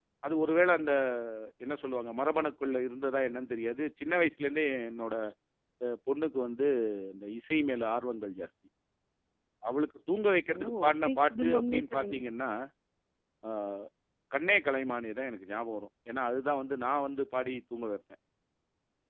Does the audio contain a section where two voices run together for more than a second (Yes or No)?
Yes